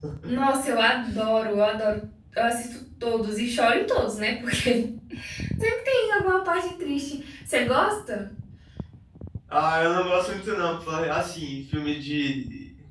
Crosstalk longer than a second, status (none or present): none